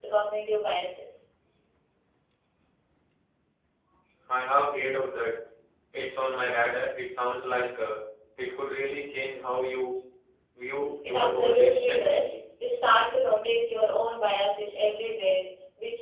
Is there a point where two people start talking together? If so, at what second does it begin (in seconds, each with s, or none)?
11.1 s